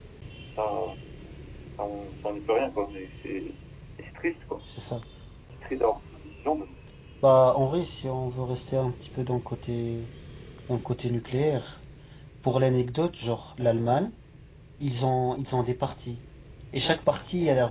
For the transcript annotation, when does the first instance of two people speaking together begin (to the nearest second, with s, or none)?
none